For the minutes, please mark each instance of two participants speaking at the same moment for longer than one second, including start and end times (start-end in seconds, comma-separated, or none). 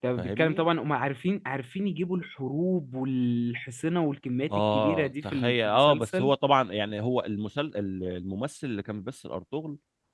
4.5-6.3